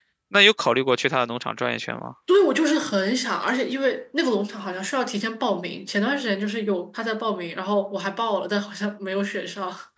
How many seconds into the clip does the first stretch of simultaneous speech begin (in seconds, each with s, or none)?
none